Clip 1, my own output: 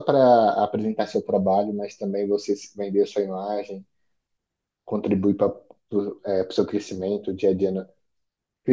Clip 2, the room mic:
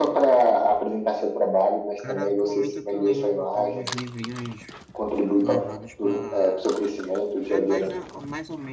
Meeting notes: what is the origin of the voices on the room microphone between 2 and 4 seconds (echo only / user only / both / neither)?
both